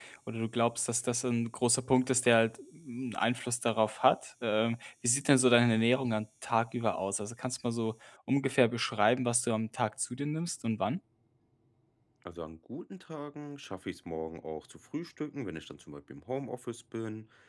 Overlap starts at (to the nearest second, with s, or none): none